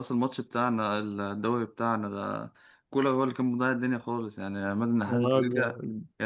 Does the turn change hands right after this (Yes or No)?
No